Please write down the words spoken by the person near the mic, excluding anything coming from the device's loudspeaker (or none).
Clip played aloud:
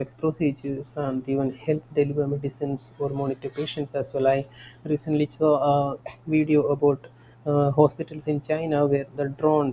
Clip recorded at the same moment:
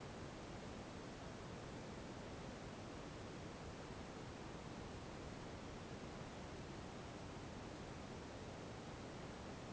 none